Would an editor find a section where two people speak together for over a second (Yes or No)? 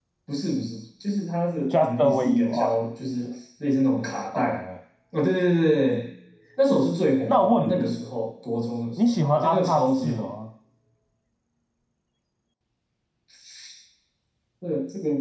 Yes